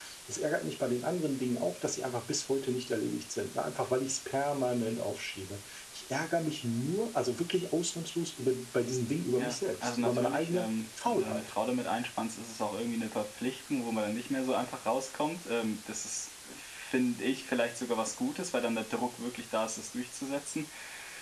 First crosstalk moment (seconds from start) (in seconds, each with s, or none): 9.4 s